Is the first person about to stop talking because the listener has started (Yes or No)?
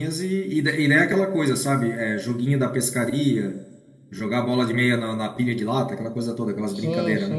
Yes